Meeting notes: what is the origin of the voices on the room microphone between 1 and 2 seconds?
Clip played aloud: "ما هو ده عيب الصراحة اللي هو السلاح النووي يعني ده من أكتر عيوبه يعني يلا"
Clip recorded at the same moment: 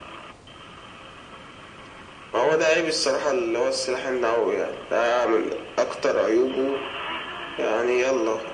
neither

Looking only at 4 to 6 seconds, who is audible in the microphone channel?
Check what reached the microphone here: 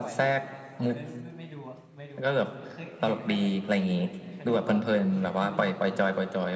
both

